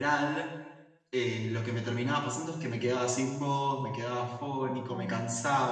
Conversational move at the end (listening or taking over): listening